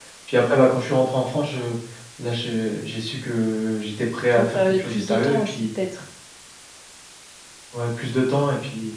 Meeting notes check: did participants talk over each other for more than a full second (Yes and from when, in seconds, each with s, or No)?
Yes, from 4.3 s